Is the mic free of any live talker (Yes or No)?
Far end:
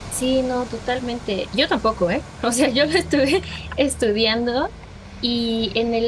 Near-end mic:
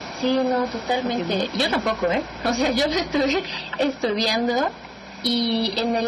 No